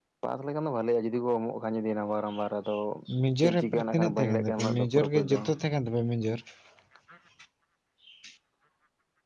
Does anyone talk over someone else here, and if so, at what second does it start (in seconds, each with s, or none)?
3.4 s